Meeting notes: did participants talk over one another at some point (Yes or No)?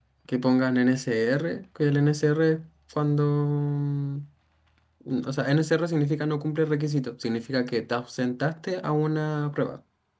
No